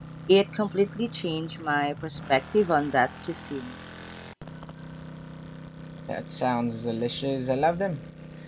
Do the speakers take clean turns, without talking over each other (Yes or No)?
Yes